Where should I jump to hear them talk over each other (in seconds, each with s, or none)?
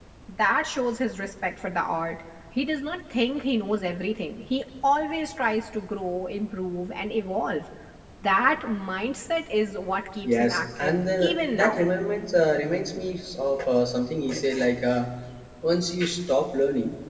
10.2 s